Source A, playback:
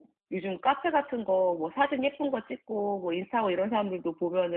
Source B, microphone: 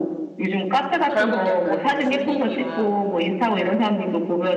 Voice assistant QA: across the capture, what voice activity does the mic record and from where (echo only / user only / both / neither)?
both